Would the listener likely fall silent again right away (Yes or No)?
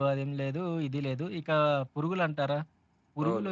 Yes